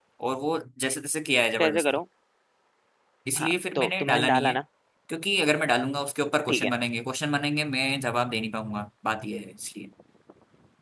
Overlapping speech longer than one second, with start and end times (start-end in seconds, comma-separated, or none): 3.4-4.6